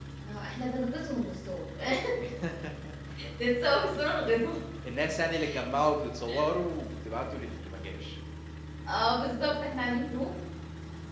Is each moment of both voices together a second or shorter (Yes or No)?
Yes